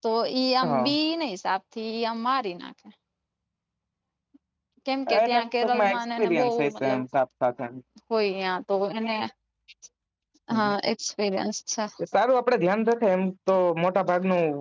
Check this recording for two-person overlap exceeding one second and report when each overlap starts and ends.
5.2-7.0

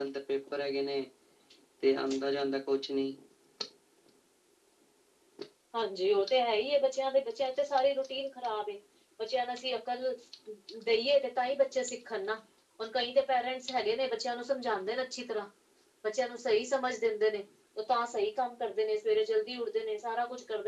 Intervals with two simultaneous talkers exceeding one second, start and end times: none

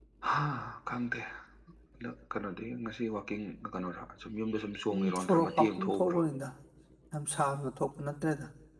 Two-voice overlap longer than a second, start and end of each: 4.9-6.2

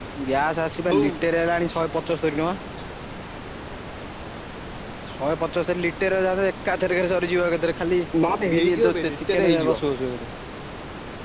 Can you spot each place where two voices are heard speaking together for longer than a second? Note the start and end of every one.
8.5-9.8

